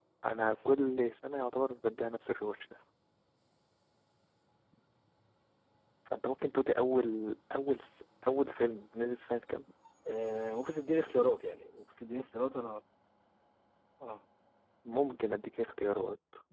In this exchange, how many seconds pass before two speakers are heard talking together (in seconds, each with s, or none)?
none